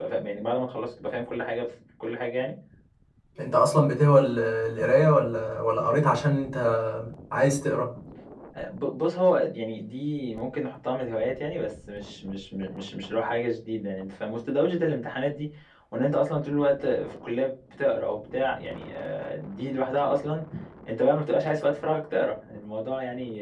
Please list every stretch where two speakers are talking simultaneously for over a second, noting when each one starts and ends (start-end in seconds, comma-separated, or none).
none